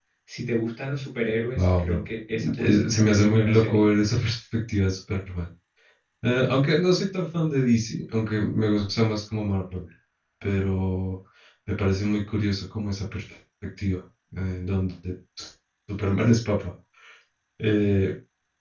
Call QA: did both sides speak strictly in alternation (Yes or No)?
No